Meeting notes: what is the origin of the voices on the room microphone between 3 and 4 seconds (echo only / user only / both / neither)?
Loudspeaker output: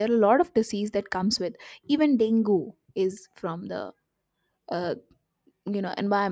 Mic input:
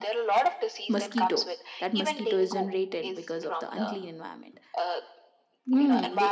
both